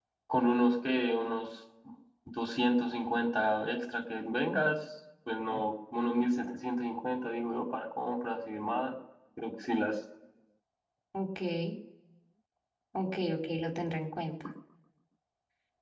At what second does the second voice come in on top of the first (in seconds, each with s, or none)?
none